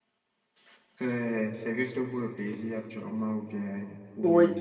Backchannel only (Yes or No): No